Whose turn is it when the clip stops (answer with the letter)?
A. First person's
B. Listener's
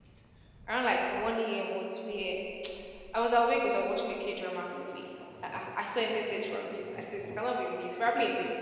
A